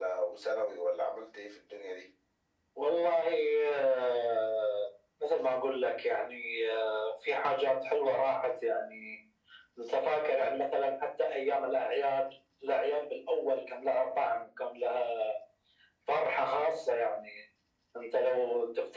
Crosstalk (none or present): none